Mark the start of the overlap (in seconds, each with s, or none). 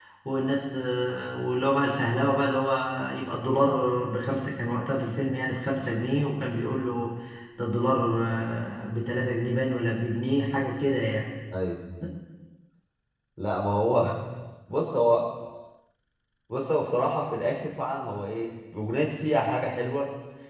none